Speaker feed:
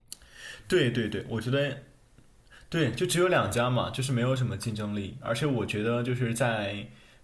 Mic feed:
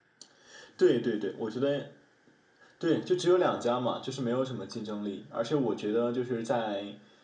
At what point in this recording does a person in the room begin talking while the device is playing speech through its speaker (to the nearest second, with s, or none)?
none